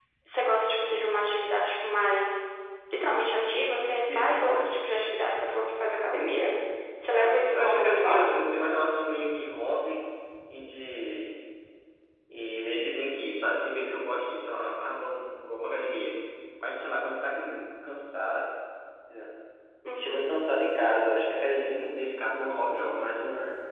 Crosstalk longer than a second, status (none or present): present